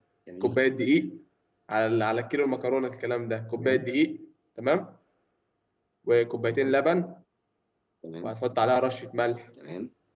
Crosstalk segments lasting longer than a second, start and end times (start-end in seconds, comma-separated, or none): none